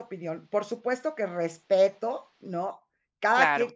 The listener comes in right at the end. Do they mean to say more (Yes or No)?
No